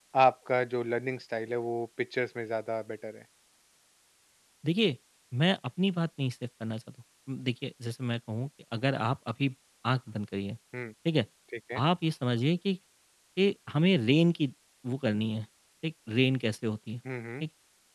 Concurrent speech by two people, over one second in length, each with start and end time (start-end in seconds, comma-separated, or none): none